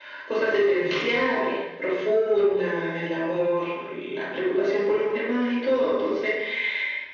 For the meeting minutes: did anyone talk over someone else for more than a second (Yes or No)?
No